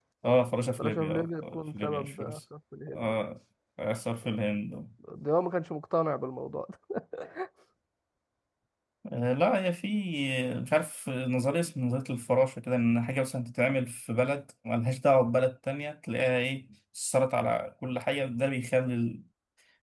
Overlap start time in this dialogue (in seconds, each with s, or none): 0.8 s